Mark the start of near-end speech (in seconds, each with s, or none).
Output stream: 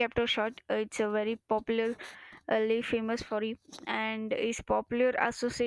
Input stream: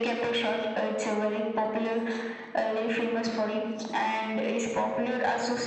none